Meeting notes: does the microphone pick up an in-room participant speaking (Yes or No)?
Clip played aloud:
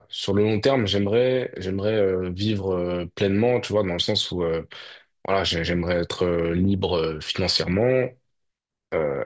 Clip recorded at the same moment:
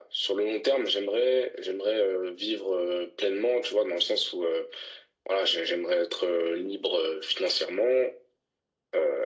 No